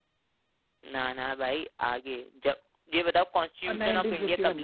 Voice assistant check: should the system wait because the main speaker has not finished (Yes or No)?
No